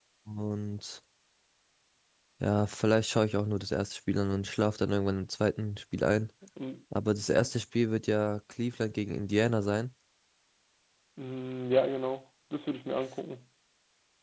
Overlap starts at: none

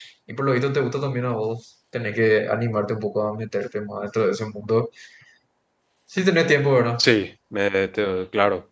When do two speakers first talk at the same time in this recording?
none

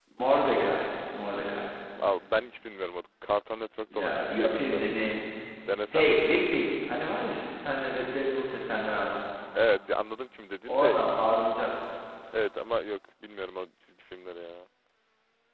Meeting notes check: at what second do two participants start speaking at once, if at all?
3.9 s

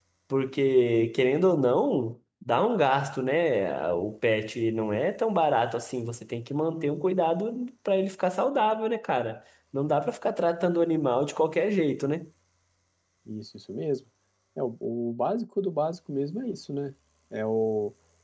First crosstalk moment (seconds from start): none

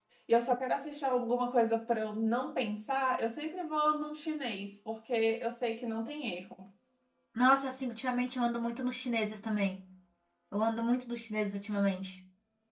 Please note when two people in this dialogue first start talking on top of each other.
none

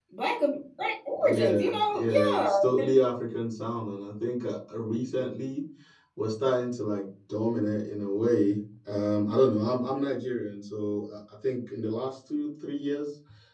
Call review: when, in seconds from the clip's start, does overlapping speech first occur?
1.1 s

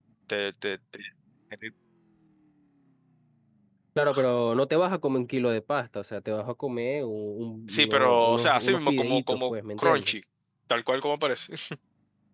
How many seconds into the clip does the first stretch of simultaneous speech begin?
7.7 s

